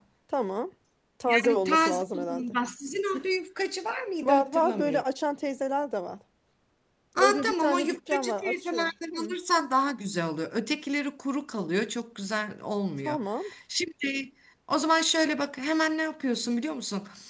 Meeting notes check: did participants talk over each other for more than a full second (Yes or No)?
Yes